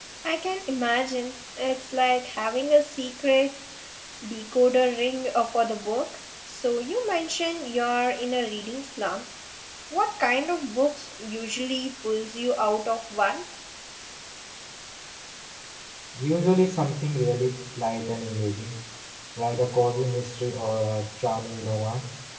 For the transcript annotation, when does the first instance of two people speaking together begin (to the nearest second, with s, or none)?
none